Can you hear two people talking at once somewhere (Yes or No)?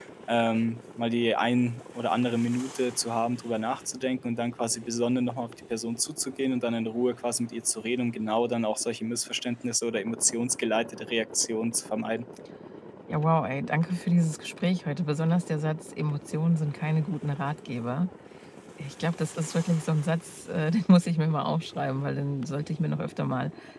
No